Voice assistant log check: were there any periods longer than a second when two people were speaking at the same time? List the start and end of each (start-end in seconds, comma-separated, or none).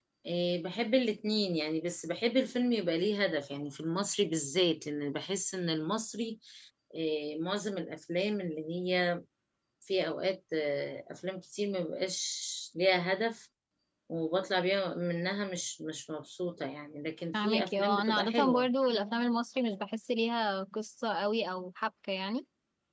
17.3-18.7